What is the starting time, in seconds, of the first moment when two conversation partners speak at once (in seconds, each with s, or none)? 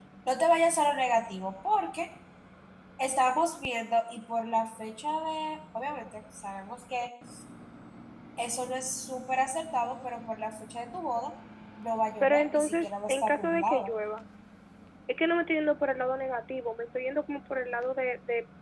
12.2 s